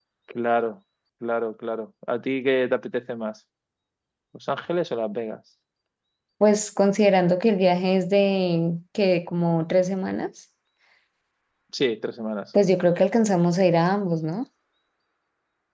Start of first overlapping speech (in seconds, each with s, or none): none